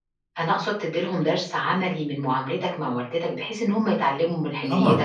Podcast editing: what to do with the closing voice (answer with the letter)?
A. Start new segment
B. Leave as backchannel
A